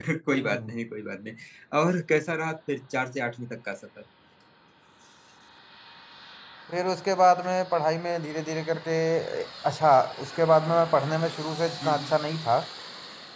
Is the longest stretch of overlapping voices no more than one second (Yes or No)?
Yes